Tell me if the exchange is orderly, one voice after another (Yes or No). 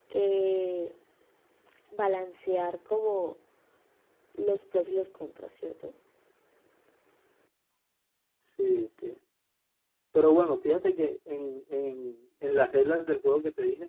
Yes